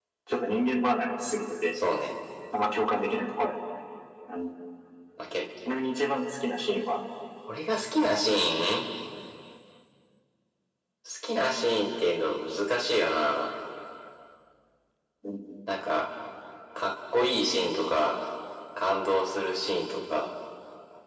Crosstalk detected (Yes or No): No